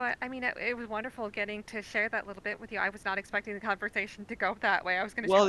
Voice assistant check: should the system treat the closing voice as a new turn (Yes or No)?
Yes